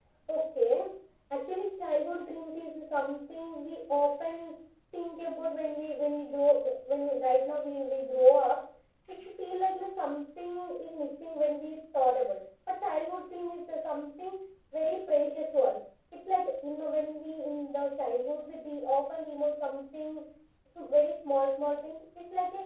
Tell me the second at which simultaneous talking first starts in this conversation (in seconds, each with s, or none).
none